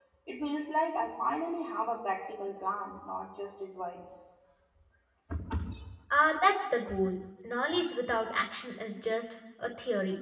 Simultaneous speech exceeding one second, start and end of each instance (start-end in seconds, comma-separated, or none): none